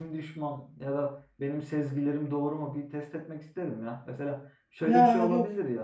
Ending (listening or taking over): listening